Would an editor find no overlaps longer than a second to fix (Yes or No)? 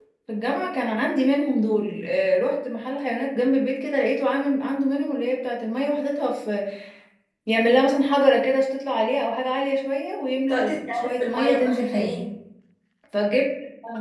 No